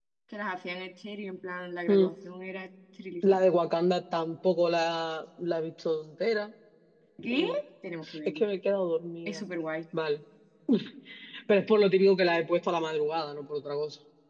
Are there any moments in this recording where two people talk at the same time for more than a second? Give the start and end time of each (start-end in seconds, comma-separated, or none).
none